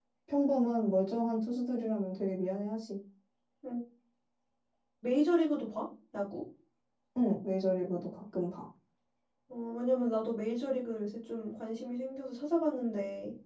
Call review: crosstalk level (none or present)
none